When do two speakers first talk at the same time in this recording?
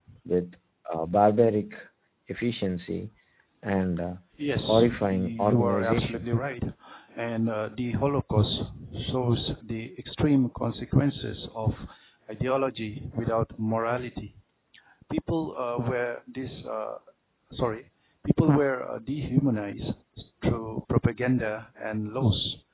4.6 s

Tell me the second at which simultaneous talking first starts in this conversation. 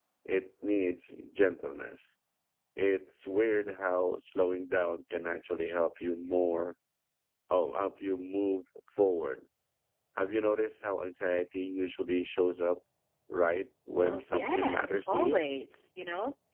14.0 s

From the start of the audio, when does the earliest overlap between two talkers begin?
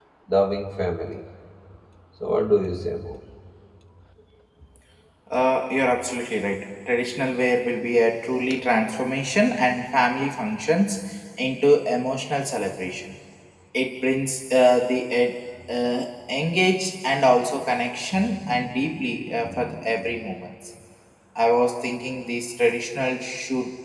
none

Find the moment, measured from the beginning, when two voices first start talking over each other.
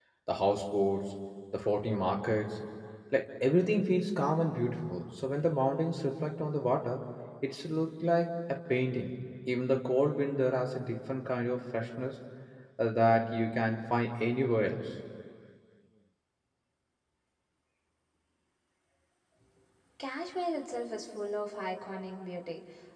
none

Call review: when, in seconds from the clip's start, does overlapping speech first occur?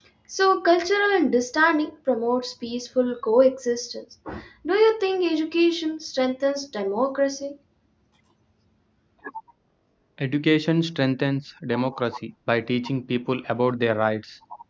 none

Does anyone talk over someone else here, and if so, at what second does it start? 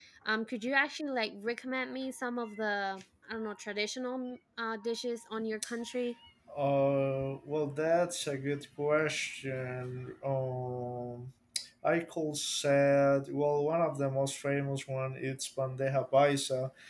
none

